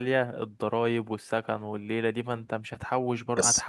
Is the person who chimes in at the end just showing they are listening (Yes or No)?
Yes